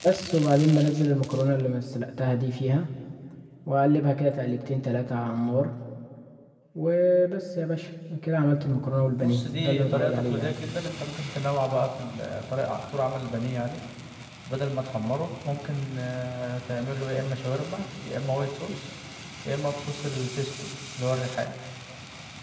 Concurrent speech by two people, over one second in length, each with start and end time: 9.2-10.5

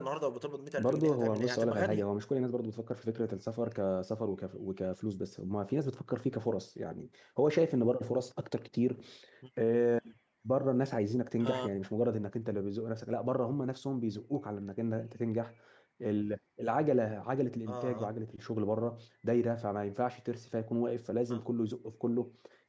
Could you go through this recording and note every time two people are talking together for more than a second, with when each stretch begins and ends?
0.8-2.1

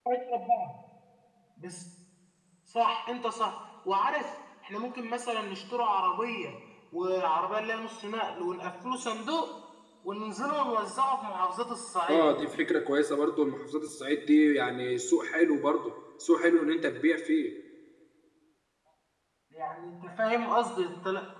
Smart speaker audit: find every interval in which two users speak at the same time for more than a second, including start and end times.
none

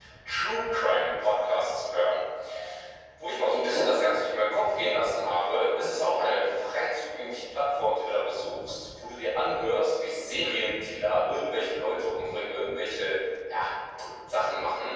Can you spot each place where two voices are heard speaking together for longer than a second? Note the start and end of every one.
none

